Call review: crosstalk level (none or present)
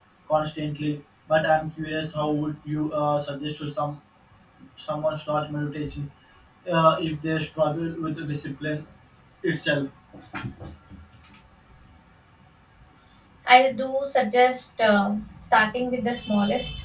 none